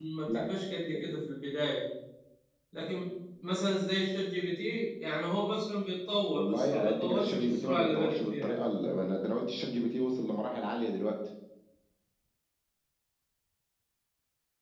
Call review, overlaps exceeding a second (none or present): present